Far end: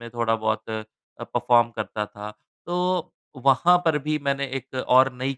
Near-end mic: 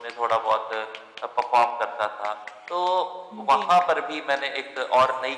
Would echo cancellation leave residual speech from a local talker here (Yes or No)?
Yes